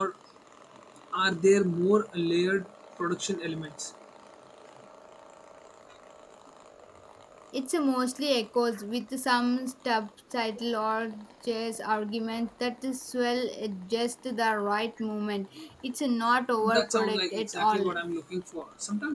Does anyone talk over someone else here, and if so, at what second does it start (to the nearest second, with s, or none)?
17 s